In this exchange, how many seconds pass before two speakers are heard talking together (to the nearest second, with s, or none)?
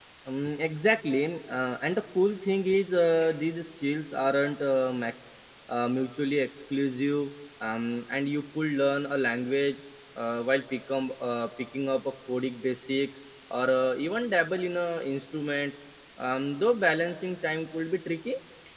none